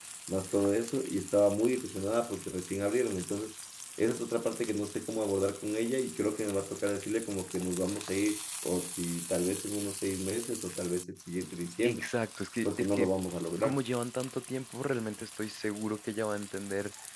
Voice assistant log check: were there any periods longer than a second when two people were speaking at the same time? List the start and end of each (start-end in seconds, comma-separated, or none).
none